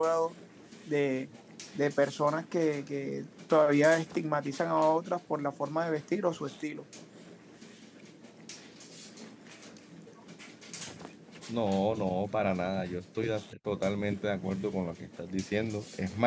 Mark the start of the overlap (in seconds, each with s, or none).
none